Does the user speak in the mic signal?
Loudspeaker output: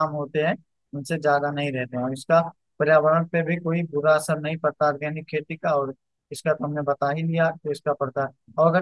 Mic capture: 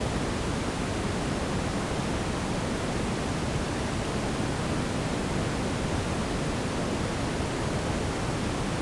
No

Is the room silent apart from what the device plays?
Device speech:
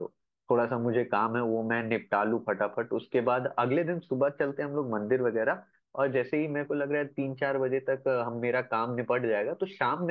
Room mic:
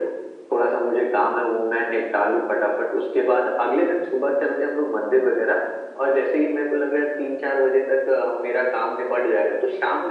Yes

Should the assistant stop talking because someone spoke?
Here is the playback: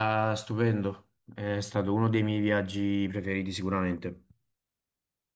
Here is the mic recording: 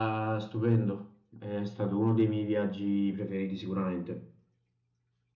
No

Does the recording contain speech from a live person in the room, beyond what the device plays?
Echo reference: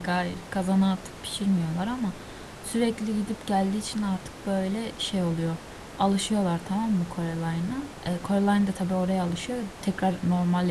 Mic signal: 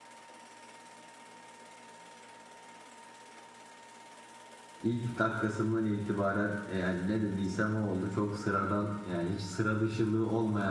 Yes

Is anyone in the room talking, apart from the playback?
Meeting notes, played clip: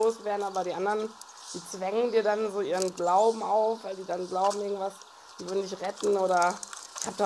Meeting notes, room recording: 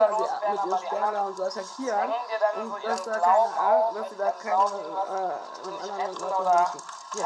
Yes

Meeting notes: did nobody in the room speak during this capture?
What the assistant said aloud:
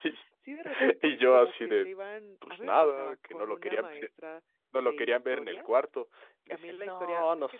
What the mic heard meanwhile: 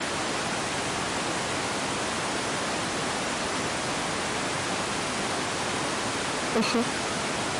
No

